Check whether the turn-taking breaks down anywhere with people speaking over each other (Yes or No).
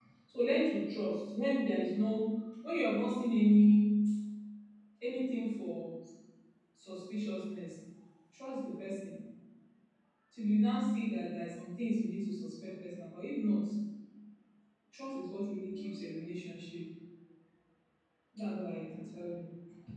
No